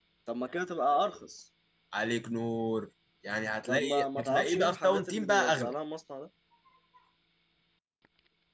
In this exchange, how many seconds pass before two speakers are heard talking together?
3.7 s

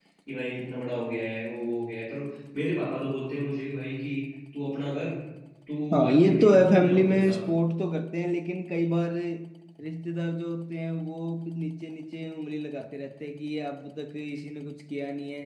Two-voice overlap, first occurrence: 5.9 s

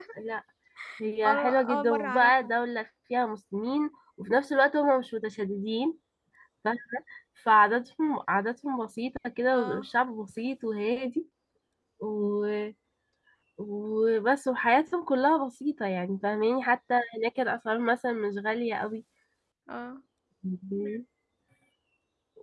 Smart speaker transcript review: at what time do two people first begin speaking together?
1.2 s

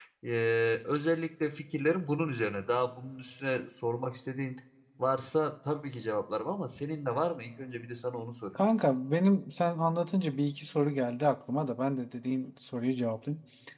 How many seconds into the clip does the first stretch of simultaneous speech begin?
none

